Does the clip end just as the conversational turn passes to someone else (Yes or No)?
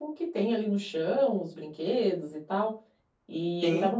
No